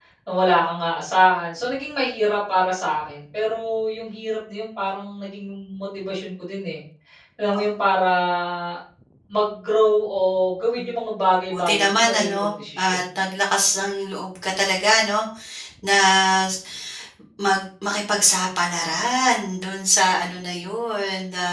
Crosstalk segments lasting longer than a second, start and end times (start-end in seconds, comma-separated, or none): 11.5-13.0